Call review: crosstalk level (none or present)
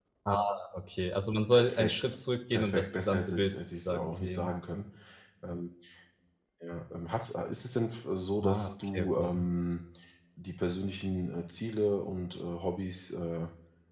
present